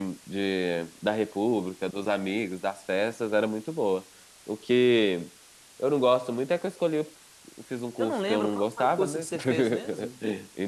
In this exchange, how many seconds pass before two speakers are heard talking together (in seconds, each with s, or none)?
8.0 s